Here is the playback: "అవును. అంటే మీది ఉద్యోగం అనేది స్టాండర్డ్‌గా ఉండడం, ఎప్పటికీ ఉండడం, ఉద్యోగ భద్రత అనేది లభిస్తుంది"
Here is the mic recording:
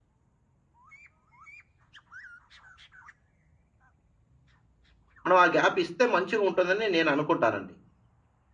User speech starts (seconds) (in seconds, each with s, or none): 5.2 s